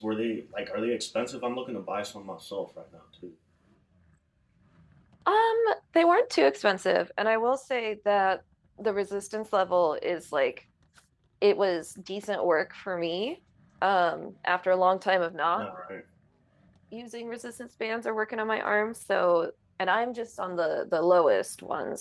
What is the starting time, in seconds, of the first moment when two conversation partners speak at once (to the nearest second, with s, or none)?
none